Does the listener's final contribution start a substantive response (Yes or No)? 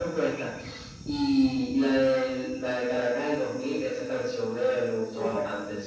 Yes